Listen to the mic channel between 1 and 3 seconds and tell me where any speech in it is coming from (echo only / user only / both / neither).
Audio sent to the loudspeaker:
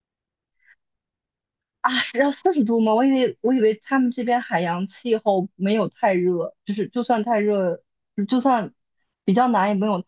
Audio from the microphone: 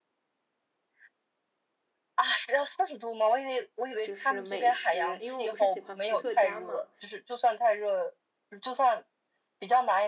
echo only